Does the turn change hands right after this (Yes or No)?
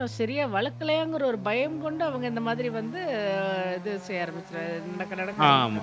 Yes